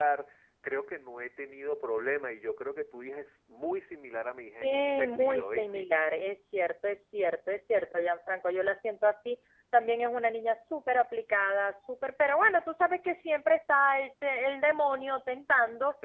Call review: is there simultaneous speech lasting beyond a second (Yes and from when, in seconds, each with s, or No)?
Yes, from 4.6 s